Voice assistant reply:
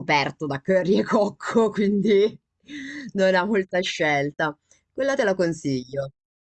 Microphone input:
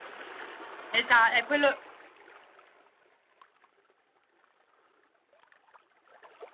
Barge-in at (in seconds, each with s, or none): 0.9 s